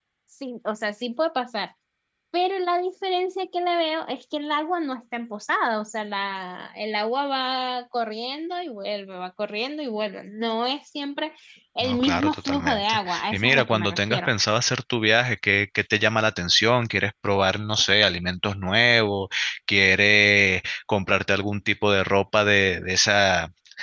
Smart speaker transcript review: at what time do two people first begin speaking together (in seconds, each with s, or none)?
11.8 s